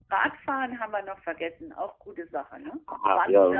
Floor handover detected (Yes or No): Yes